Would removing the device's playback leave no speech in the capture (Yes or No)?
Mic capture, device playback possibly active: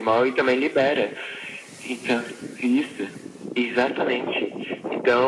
Yes